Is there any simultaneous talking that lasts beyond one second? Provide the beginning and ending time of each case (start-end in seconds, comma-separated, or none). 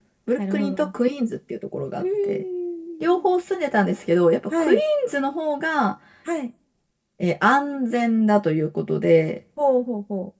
none